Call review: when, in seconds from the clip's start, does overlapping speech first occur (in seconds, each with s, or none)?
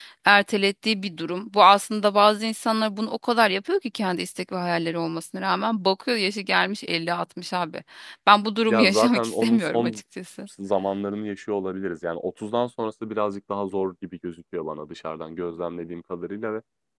8.7 s